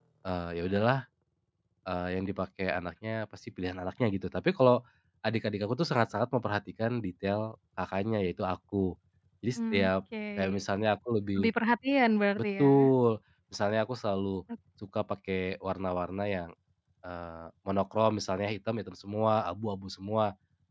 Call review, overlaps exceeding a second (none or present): none